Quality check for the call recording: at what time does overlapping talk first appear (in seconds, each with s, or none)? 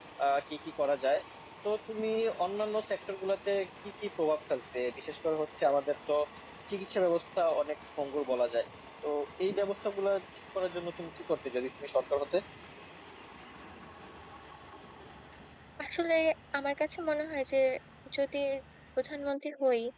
none